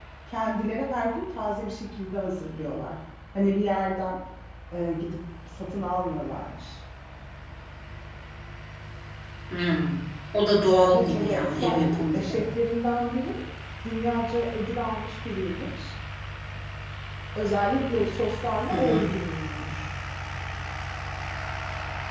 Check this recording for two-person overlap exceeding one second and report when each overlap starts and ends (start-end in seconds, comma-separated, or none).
10.8-12.4